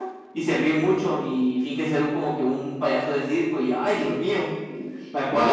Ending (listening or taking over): taking over